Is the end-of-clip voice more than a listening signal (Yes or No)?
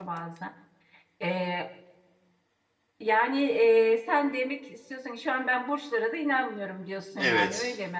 Yes